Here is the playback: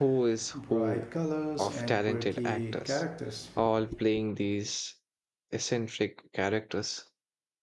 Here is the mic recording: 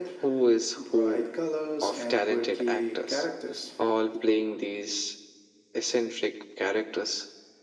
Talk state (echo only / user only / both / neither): echo only